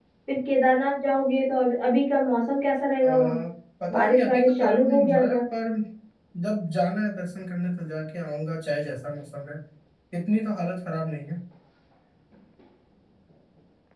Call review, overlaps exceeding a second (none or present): present